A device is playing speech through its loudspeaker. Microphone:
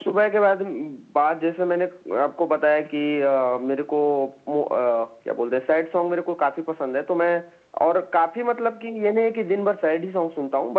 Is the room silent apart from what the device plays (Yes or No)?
Yes